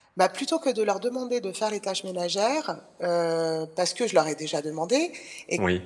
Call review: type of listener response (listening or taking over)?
listening